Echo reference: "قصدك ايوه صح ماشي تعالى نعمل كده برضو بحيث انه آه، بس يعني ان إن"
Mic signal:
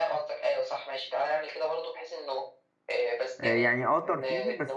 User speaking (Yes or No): Yes